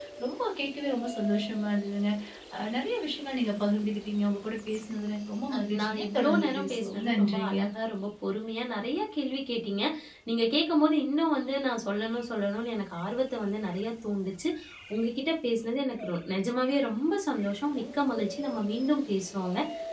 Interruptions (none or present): present